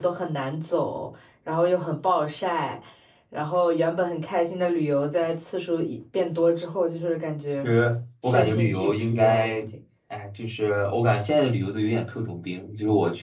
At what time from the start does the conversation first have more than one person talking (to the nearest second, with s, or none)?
8 s